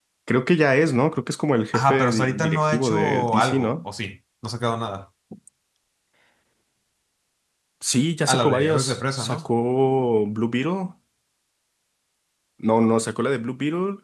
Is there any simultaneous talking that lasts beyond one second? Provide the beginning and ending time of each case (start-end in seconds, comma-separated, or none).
1.7-3.7, 8.3-9.5